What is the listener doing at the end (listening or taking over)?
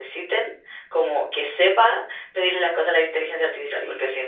listening